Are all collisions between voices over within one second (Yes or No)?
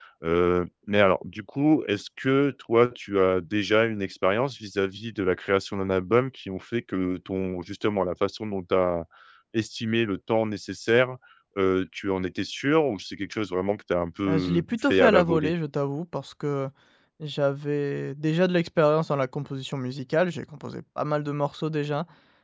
No